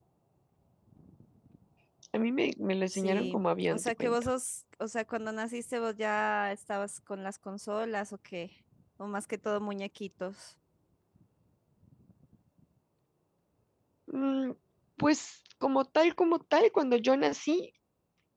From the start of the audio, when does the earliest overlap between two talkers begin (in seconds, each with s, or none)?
2.9 s